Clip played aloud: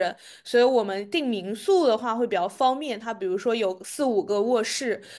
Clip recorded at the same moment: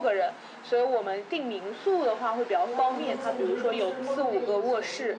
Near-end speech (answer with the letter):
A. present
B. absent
A